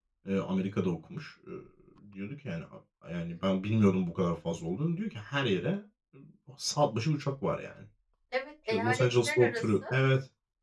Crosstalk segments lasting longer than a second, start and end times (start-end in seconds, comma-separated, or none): 8.7-9.9